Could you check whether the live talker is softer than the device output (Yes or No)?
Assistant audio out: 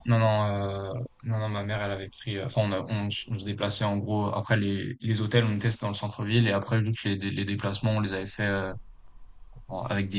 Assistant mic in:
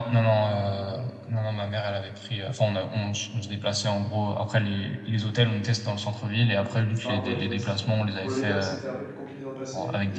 Yes